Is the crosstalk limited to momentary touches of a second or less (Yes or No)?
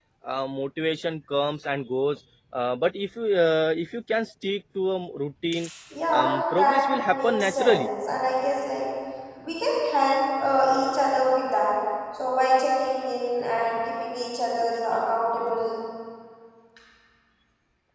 No